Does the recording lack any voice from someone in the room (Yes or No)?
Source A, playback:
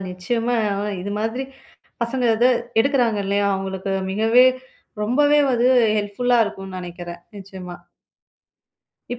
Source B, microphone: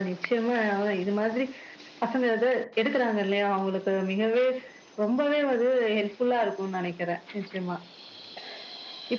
Yes